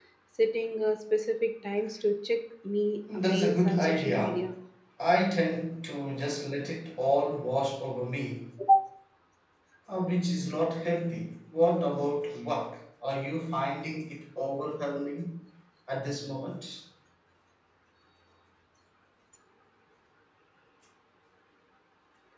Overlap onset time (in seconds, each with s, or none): 3.1 s